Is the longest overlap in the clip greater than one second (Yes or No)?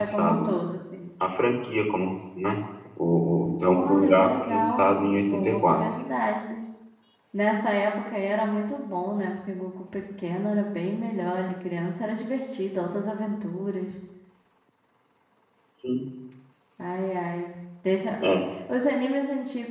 Yes